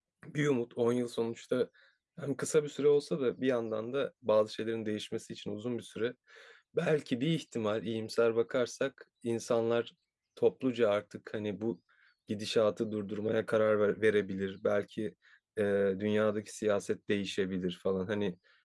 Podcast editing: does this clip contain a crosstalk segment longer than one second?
No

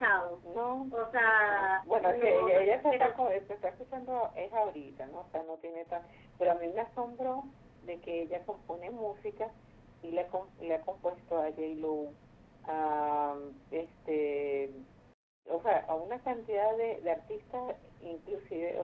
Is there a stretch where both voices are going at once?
Yes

